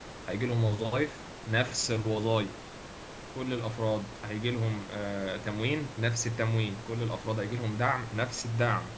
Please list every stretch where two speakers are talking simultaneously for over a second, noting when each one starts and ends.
none

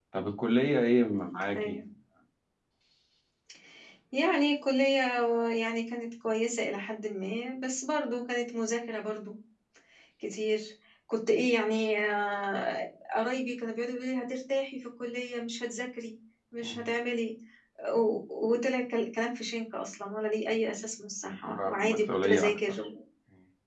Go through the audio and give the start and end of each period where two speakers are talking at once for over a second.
21.3-22.8

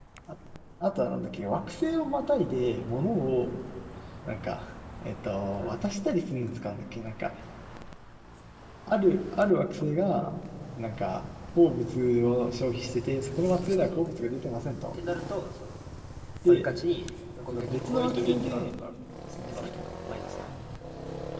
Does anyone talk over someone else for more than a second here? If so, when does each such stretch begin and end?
17.5-18.7

